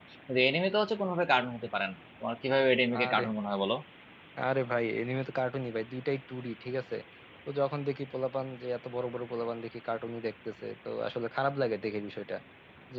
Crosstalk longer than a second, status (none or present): none